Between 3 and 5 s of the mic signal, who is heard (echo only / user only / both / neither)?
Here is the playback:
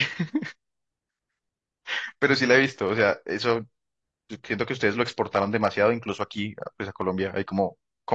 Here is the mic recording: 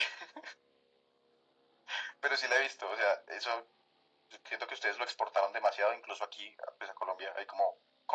echo only